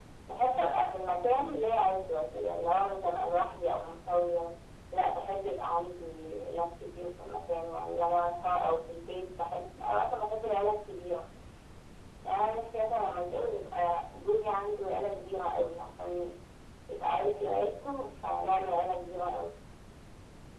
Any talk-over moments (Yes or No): No